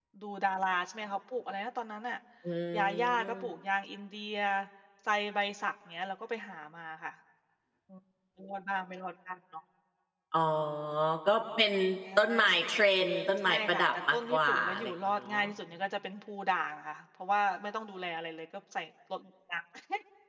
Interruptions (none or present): present